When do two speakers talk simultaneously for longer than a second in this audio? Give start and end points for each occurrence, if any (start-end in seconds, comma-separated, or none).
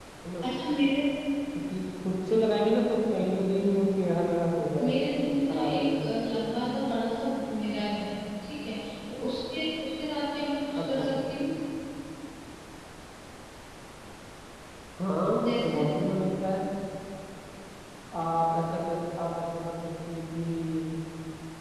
4.8-6.2